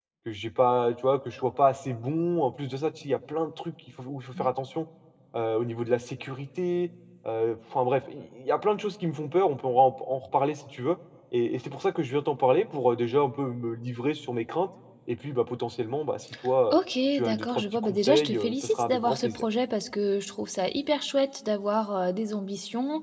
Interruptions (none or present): present